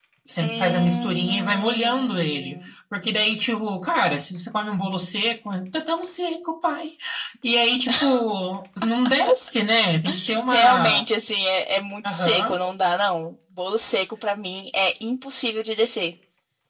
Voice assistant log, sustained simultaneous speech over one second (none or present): present